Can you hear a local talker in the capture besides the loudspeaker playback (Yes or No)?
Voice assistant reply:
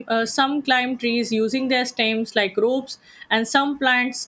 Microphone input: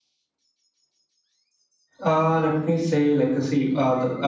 Yes